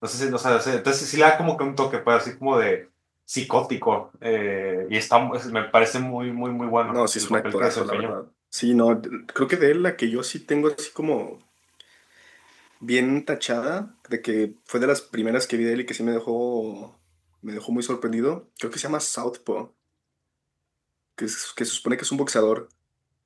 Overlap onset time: 6.9 s

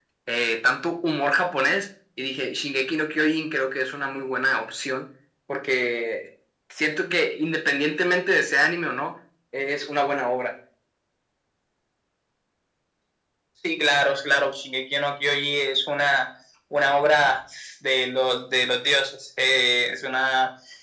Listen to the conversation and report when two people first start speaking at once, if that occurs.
none

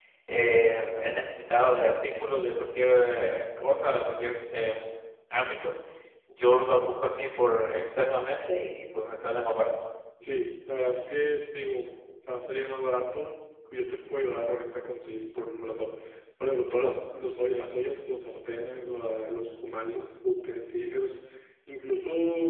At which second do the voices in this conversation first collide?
none

